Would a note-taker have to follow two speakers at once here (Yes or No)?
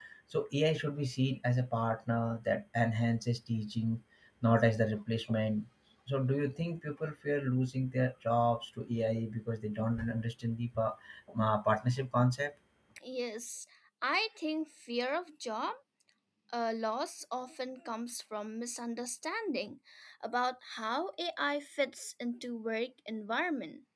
No